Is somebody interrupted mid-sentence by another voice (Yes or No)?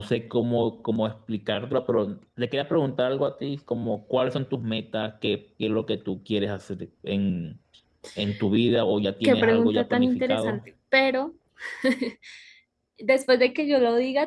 Yes